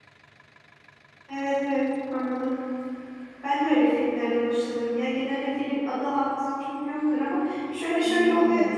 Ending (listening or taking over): listening